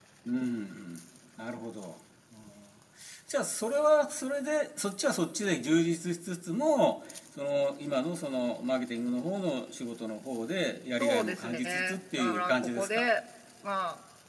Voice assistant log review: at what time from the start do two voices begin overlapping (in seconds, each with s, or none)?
11.0 s